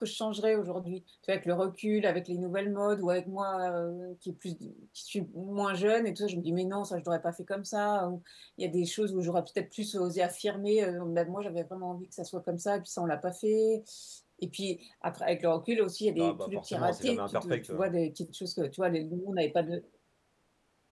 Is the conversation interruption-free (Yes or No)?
No